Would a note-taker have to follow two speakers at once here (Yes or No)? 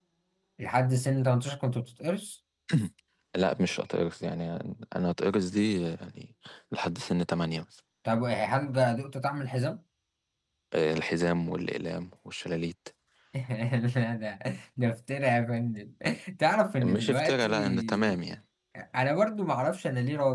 Yes